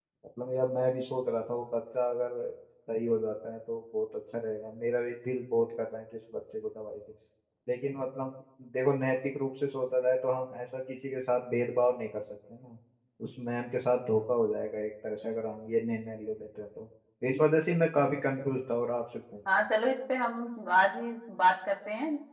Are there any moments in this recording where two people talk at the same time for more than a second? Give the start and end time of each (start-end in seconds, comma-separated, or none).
none